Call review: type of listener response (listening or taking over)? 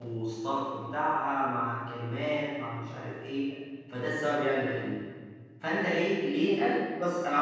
listening